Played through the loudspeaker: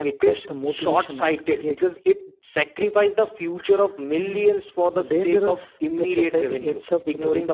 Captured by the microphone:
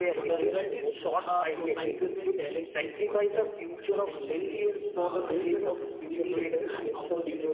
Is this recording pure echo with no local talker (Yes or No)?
No